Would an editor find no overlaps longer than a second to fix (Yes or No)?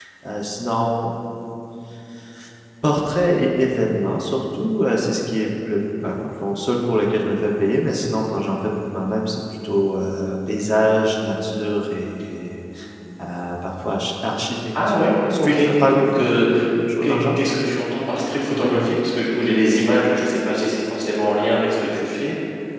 No